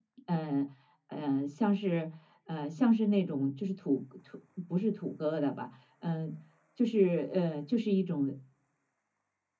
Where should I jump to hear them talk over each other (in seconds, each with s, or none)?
none